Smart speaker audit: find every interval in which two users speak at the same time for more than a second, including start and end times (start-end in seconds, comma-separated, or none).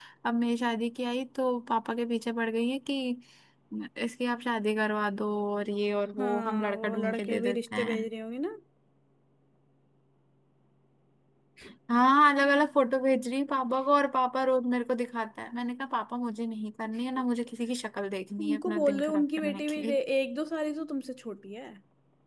6.2-8.1, 18.4-19.9